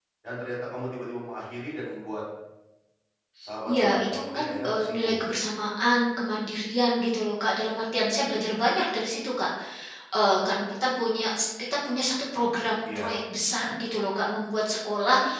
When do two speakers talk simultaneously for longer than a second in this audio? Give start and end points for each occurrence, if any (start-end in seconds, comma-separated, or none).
3.7-5.3